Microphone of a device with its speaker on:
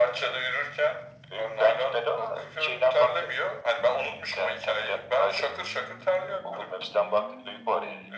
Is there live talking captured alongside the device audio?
No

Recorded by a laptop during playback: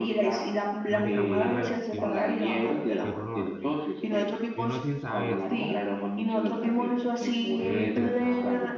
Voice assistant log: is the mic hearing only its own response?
No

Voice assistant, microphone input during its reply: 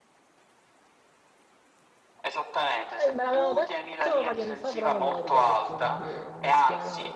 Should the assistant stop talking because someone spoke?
Yes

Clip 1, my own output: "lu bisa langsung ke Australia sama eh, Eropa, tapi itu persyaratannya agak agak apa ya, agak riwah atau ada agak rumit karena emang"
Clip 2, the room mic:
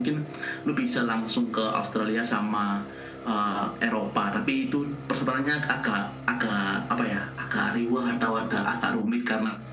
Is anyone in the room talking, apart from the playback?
No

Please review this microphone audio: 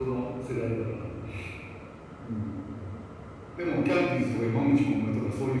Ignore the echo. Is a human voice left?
Yes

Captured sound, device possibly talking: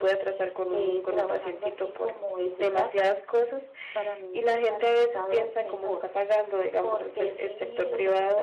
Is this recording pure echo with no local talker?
Yes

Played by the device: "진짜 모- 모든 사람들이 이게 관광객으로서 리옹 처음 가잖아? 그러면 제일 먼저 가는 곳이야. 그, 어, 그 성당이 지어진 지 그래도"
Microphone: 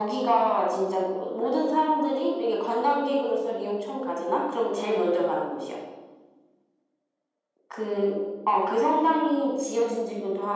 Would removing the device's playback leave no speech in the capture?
Yes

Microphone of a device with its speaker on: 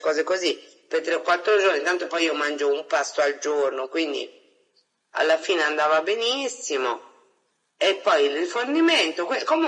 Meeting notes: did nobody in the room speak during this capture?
Yes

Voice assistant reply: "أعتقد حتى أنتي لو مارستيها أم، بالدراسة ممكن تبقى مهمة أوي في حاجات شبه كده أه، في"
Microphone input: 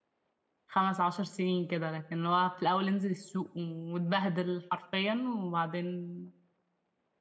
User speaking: Yes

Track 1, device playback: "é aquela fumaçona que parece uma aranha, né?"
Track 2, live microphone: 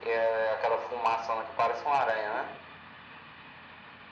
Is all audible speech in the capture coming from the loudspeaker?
Yes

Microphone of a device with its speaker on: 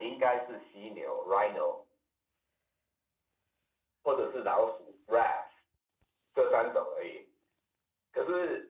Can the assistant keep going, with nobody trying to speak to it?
Yes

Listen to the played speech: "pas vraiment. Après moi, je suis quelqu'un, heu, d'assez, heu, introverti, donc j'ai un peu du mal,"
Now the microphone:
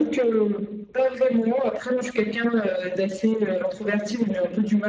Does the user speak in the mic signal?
No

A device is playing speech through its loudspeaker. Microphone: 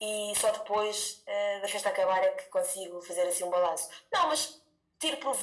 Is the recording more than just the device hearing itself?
No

